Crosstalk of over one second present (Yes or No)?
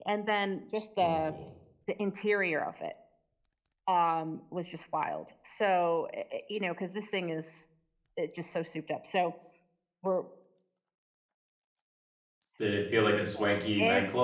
No